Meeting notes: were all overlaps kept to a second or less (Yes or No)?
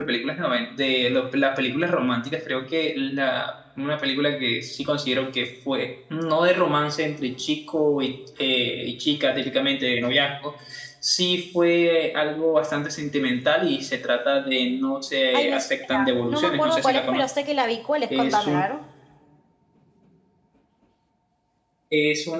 No